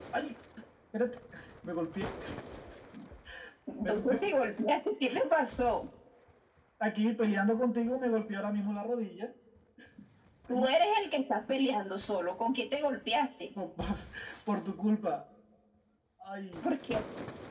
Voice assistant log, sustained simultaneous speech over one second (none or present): none